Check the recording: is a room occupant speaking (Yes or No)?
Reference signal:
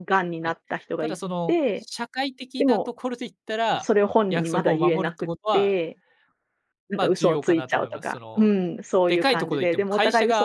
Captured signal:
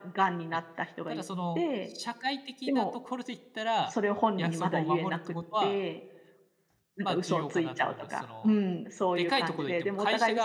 No